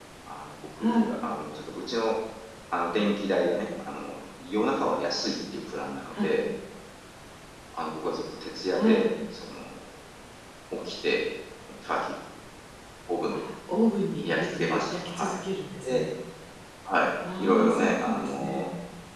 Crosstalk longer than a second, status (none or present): present